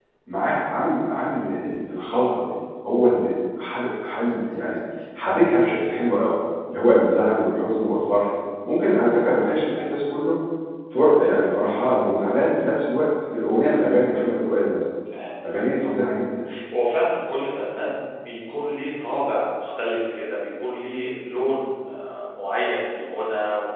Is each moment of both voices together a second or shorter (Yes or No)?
Yes